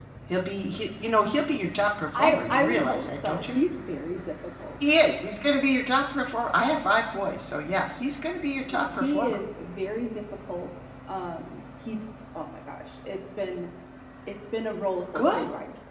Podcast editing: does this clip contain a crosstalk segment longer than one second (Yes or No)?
Yes